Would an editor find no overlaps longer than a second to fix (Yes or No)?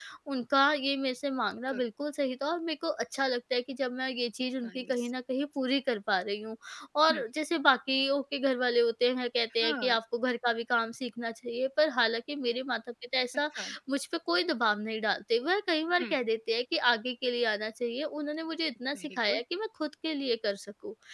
Yes